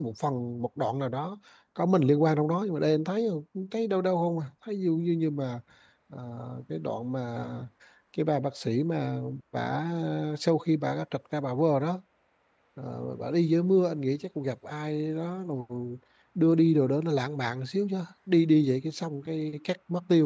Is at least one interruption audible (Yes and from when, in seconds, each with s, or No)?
No